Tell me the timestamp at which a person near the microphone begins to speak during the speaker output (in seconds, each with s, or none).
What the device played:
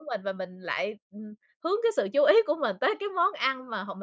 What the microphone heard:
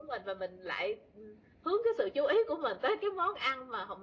none